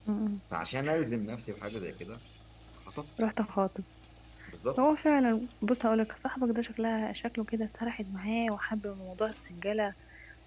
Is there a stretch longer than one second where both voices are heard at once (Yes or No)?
No